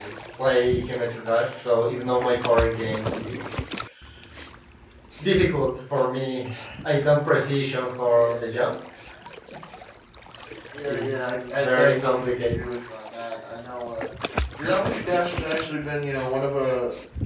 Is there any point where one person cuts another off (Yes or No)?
Yes